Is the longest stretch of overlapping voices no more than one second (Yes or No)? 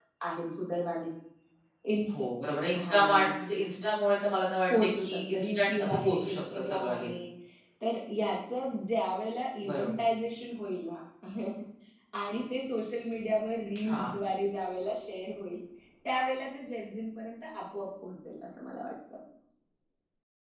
No